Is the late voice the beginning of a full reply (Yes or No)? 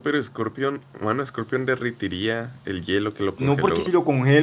Yes